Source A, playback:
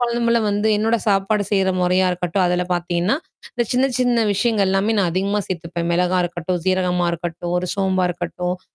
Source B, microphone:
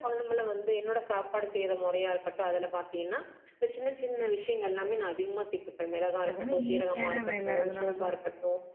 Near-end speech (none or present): present